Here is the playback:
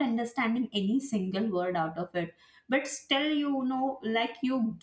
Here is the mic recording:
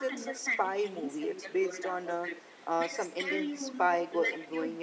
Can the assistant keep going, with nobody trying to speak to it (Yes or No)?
No